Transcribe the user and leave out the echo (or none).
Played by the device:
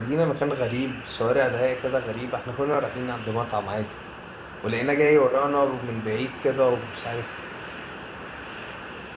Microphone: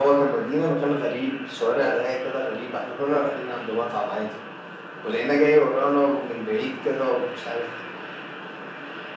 none